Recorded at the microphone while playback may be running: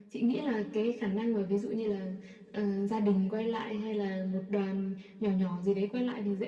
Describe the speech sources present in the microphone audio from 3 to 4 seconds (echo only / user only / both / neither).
echo only